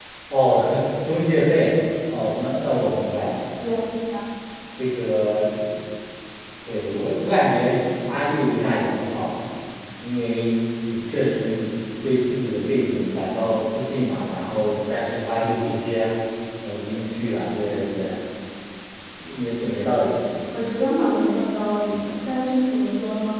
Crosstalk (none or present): none